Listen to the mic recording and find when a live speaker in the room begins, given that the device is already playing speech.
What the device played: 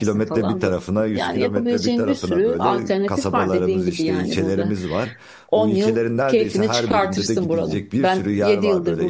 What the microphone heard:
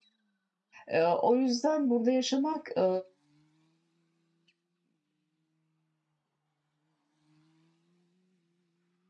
0.9 s

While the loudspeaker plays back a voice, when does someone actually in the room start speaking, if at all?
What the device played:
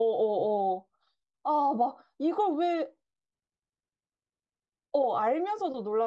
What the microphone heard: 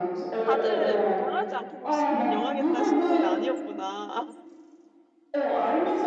0.5 s

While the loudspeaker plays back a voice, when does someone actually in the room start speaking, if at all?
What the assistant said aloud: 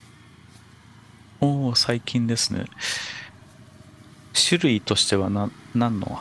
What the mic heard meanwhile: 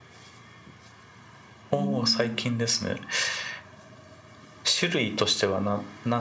1.7 s

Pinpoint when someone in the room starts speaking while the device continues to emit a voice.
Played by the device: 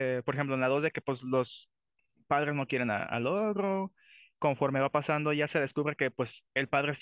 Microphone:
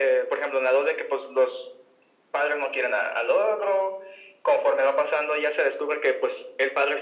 none

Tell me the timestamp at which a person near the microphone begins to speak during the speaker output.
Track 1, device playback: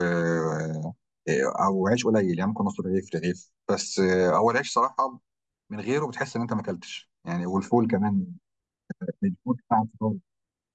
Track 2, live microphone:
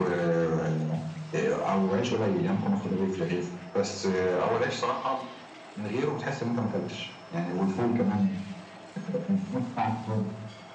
none

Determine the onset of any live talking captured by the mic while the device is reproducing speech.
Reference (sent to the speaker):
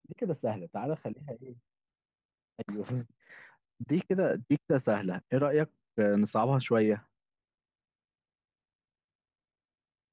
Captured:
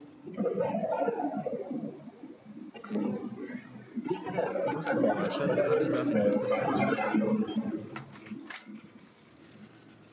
4.6 s

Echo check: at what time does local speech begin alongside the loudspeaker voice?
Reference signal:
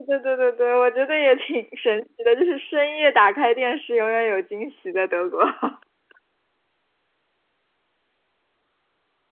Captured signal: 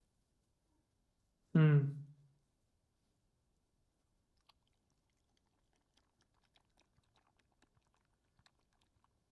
1.5 s

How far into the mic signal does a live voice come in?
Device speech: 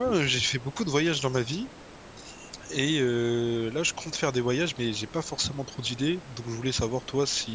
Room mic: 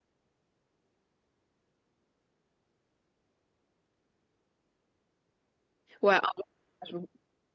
6.0 s

